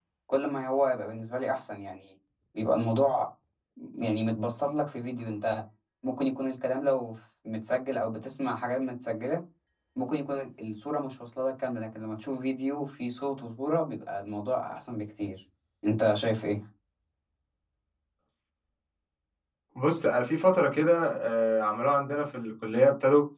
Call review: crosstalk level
none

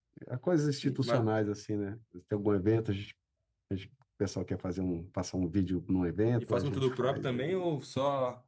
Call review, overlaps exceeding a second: present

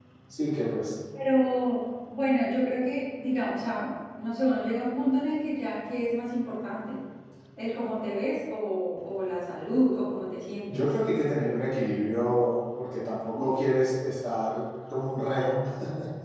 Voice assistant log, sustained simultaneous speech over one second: none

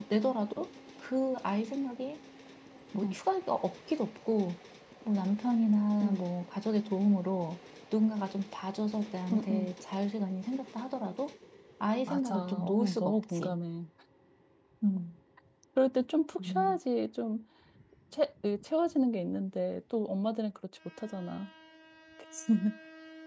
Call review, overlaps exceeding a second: present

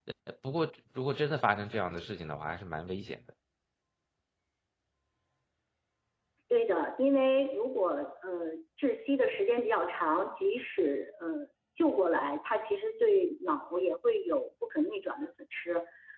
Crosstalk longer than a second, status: none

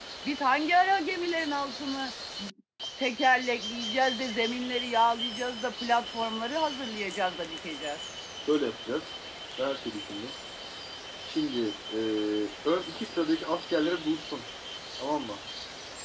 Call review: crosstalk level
none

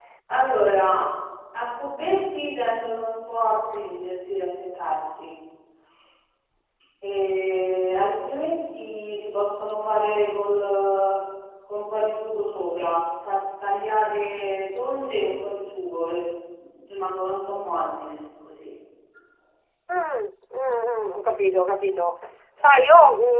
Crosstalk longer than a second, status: none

